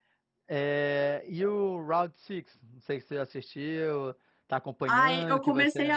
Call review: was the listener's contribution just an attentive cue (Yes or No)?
No